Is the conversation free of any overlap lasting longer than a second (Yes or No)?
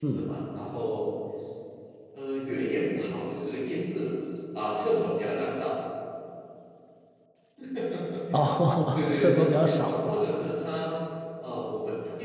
No